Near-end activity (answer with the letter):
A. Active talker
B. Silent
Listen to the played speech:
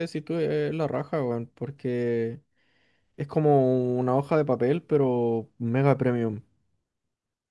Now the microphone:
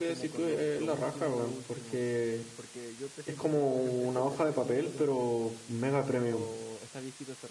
A